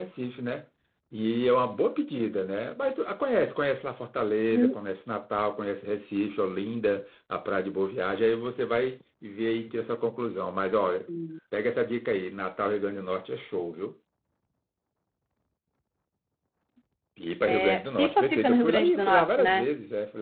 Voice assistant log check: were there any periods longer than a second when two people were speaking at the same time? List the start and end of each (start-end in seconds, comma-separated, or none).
17.6-19.6